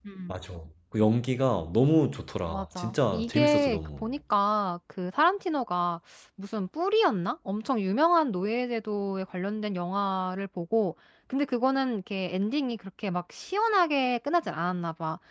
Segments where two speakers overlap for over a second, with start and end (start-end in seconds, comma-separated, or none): 2.5-4.0